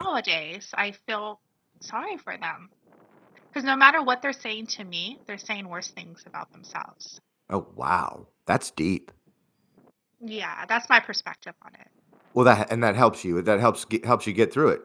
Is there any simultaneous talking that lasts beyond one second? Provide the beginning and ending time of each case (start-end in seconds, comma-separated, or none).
none